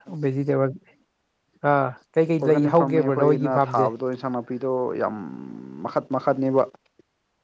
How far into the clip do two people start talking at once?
2 s

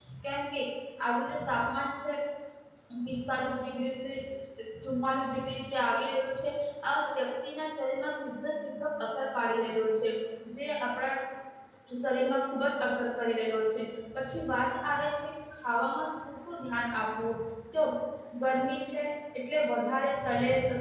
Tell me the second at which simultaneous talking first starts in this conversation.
none

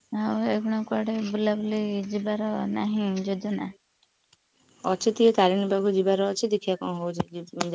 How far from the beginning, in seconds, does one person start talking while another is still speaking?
none

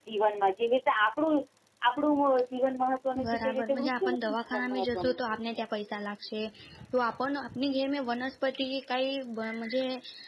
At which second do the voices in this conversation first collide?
3 s

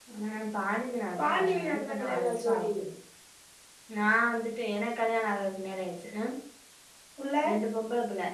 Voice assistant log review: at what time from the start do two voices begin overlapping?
1 s

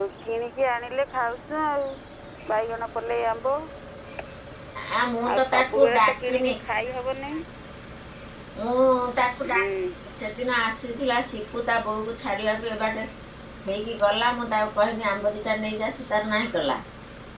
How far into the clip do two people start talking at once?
5 s

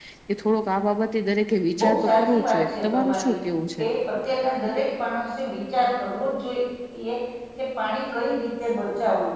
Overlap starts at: 2 s

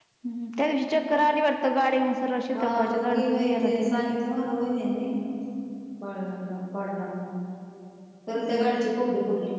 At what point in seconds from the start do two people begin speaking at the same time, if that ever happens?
3 s

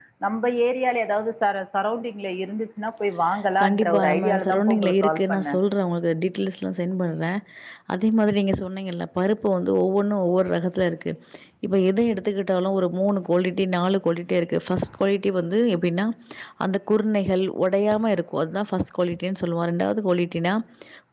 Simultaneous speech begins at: 4 s

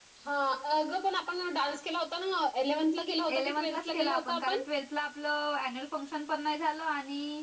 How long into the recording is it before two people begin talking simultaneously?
3 s

